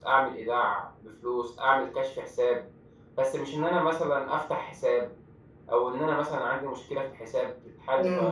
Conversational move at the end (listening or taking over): taking over